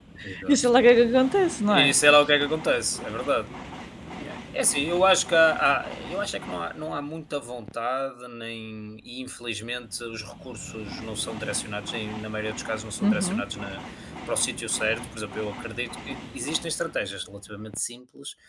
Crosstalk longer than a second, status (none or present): none